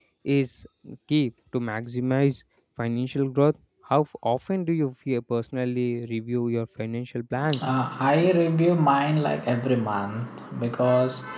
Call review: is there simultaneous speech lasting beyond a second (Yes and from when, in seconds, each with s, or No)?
No